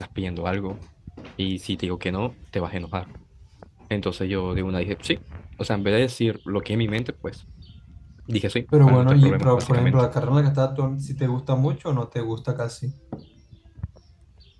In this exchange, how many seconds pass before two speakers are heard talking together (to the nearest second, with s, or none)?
9 s